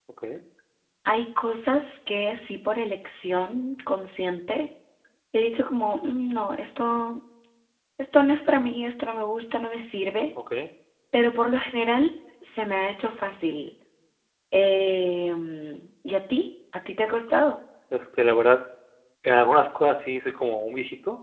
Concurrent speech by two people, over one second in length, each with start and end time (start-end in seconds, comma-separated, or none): none